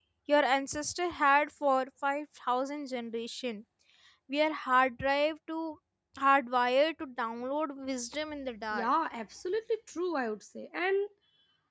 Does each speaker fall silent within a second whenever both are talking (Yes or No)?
Yes